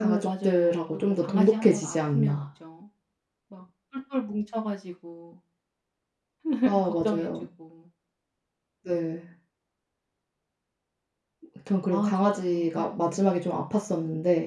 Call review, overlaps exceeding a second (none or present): present